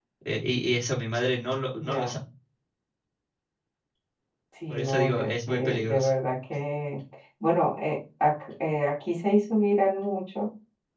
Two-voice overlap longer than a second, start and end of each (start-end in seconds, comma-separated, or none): 4.7-6.1